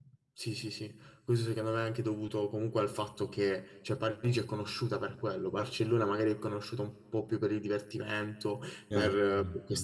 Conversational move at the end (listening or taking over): listening